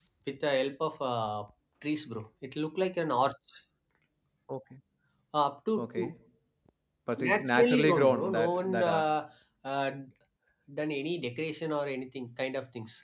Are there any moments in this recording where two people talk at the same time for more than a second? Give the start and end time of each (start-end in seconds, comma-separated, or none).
7.3-9.1